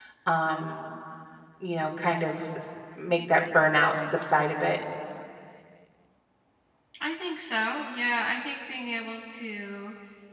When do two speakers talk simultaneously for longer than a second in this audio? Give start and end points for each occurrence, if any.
none

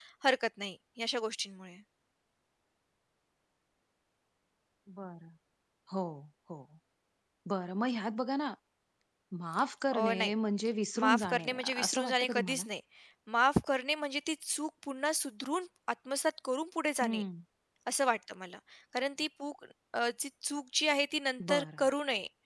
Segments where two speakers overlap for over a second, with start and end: 11.0-12.6

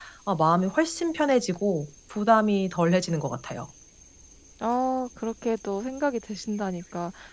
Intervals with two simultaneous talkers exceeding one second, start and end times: none

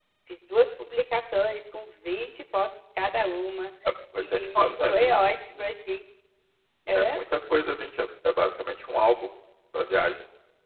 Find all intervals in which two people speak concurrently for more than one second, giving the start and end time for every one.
4.2-5.4

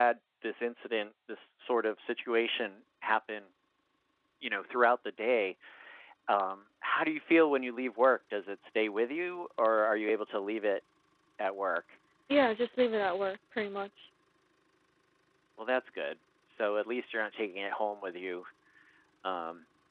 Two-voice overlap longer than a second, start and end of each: none

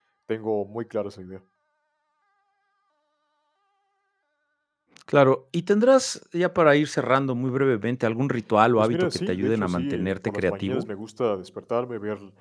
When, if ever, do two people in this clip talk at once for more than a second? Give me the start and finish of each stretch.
8.8-10.9

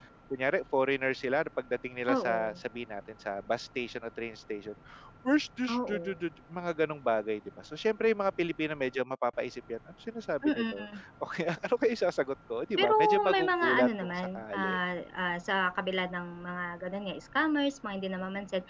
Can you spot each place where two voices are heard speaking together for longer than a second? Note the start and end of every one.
12.8-14.8

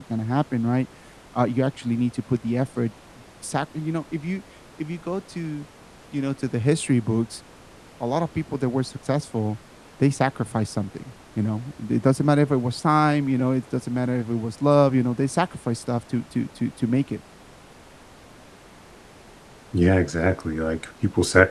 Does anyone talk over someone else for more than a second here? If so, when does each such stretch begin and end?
none

